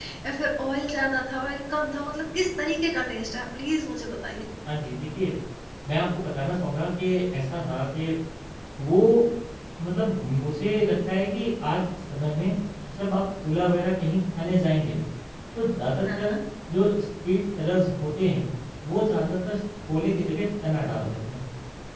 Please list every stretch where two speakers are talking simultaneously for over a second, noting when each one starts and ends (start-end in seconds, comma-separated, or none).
none